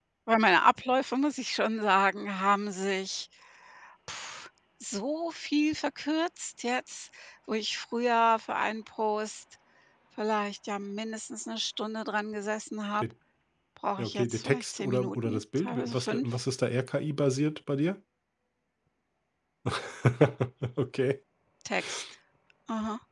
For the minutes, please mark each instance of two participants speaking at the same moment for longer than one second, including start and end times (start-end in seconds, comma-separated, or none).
14.0-16.3